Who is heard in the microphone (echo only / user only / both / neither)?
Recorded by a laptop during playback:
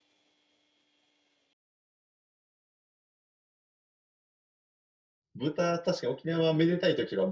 user only